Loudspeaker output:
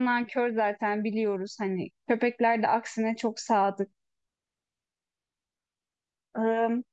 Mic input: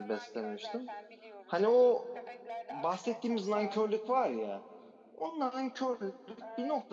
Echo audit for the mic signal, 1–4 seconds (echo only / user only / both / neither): both